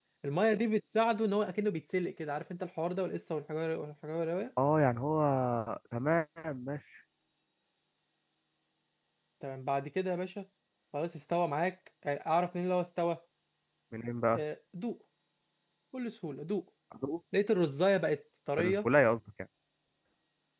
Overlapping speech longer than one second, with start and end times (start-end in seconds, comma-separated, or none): none